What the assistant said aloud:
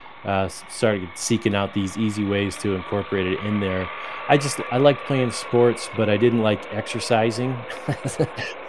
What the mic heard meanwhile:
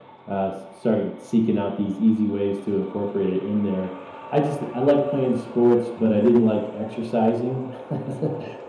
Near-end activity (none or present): none